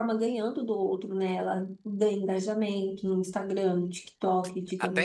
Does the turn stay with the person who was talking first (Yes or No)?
Yes